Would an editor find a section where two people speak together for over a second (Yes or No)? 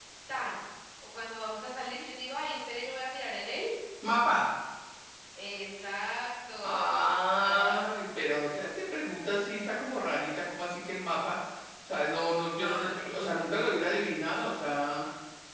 Yes